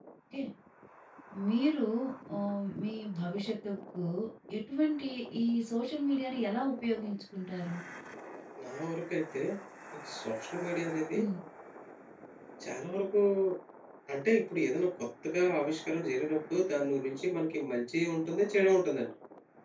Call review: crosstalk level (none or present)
none